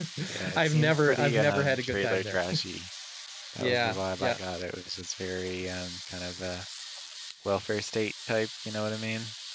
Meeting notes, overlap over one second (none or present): present